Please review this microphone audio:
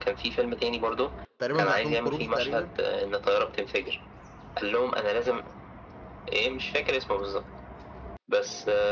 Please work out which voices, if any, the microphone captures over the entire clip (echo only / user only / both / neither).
both